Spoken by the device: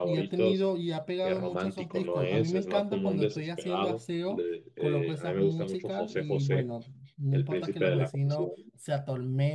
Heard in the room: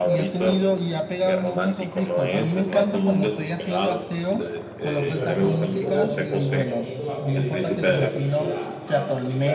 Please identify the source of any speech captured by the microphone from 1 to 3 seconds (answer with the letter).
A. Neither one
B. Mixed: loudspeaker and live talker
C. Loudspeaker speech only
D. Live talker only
C